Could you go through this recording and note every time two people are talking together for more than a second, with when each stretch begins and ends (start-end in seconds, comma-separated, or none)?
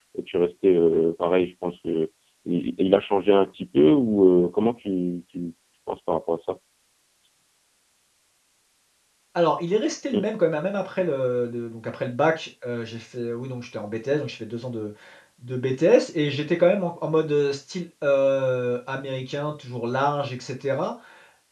none